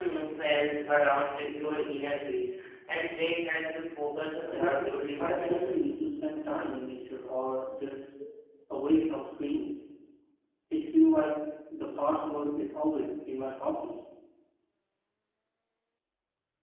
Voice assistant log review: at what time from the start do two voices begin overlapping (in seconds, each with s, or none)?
4.4 s